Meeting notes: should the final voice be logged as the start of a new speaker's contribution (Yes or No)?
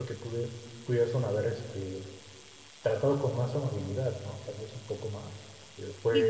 Yes